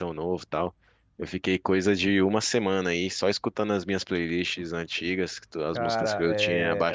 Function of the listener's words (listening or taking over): taking over